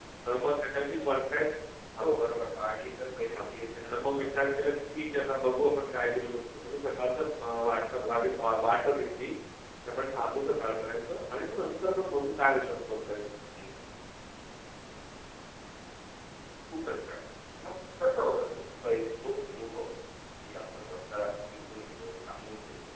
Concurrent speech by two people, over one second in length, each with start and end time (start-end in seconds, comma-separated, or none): none